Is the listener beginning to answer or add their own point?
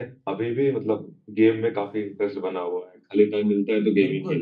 Yes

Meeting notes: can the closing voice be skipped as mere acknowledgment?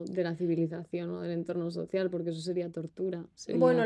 No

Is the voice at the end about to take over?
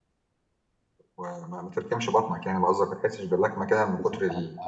Yes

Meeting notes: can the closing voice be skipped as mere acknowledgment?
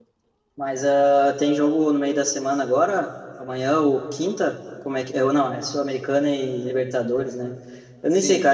Yes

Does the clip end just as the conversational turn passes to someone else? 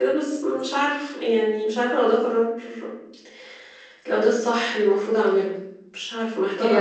Yes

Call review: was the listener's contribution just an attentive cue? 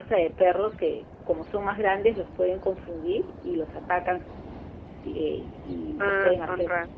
No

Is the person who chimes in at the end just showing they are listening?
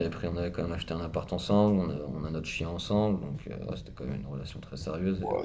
No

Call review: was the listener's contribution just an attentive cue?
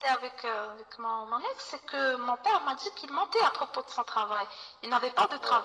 Yes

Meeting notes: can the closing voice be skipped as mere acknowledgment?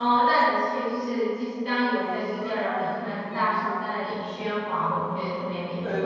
No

